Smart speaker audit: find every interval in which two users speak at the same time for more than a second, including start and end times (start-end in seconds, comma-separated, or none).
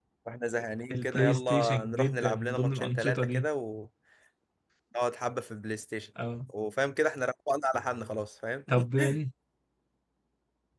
0.9-3.5